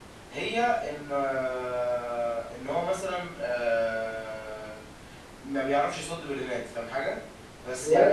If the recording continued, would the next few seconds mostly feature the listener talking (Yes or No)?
Yes